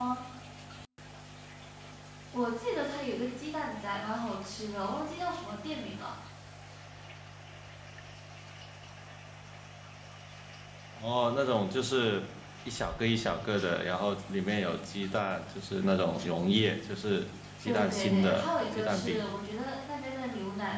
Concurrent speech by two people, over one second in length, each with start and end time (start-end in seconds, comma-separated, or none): 17.7-19.3